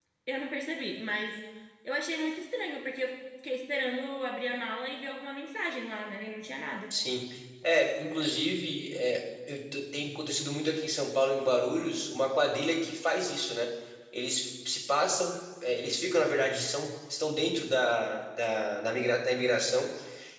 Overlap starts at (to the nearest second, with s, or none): none